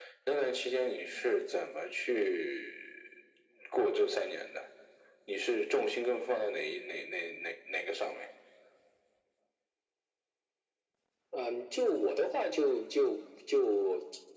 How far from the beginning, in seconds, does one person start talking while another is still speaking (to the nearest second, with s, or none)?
none